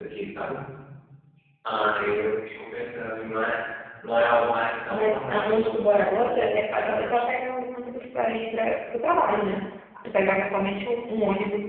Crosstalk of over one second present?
Yes, from 4.9 s

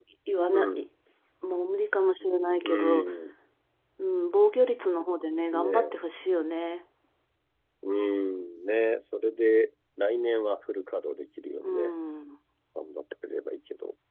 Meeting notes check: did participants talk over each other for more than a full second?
No

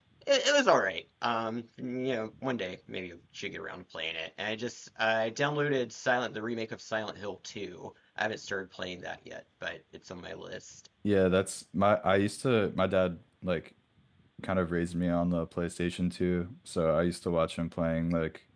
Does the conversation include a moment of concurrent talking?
No

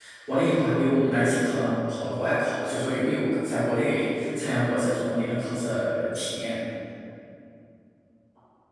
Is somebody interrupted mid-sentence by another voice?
No

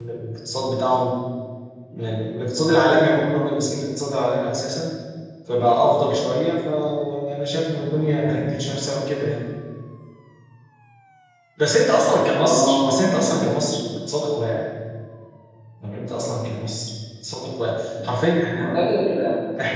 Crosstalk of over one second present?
Yes, from 12.3 s

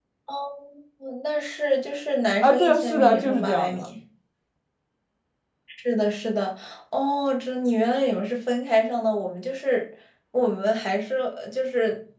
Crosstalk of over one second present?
Yes, from 2.4 s

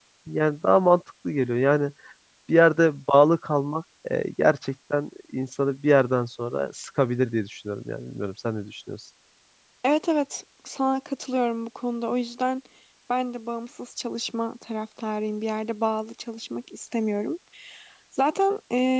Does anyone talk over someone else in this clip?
No

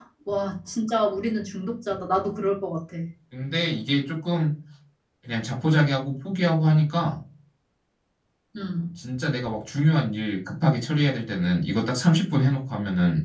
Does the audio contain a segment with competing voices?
No

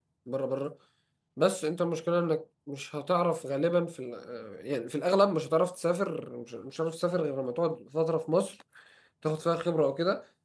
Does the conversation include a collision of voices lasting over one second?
No

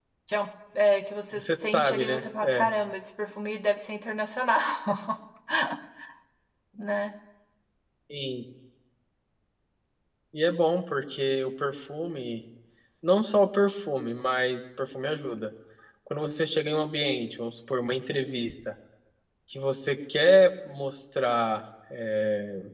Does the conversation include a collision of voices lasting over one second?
Yes, from 1.3 s

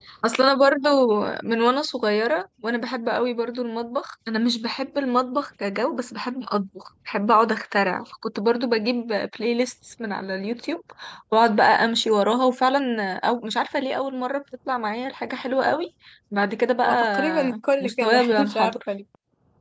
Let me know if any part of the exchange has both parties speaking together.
Yes, from 16.8 s

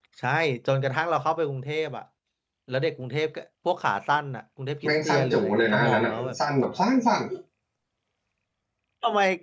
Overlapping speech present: Yes, from 4.8 s

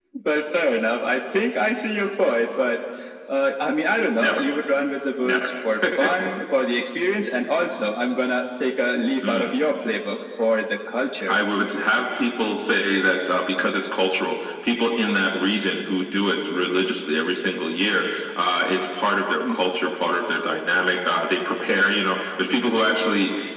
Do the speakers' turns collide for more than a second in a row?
No

